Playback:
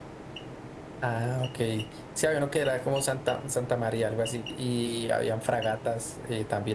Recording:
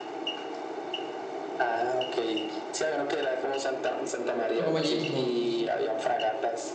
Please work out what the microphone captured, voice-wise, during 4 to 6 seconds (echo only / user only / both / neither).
both